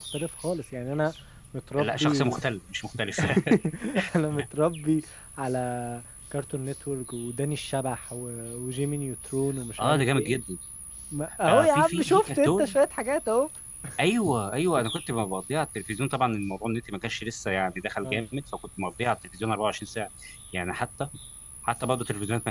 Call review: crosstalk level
present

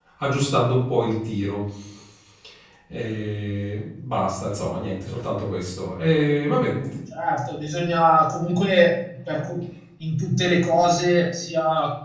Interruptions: none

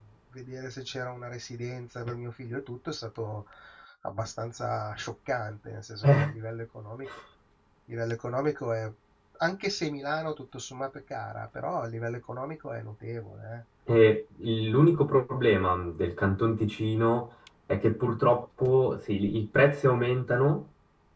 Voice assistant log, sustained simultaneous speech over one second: none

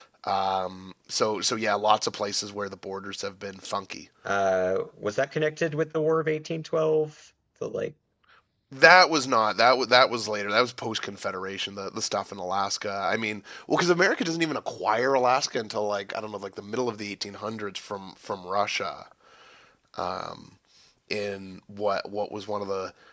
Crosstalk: none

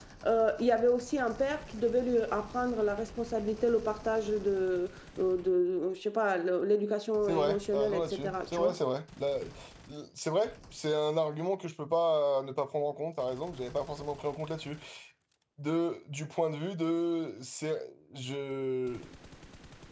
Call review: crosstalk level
present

